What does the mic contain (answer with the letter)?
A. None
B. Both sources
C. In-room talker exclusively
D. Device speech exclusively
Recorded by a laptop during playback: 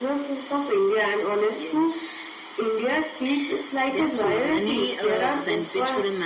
D